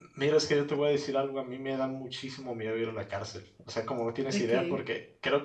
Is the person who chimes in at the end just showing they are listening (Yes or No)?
Yes